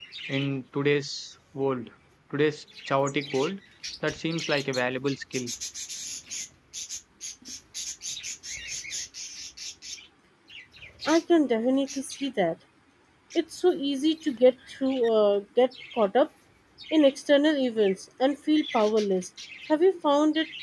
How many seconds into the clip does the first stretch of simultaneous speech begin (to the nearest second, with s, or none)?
none